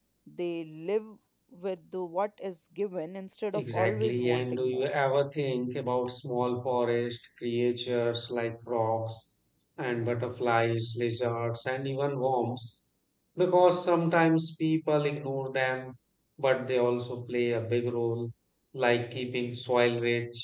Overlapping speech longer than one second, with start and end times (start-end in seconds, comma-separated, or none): 3.5-4.9